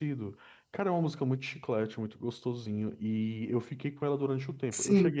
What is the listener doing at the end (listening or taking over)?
listening